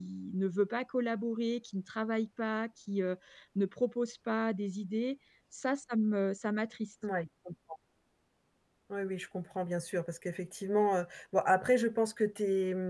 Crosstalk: none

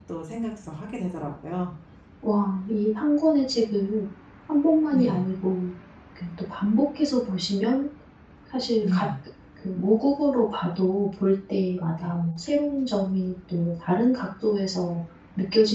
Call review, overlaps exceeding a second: none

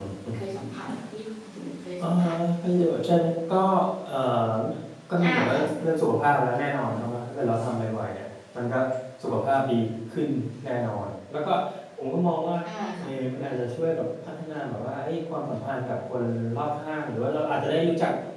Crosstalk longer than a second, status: none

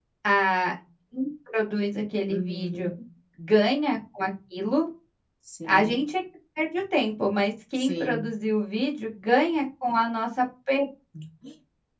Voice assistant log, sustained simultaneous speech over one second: none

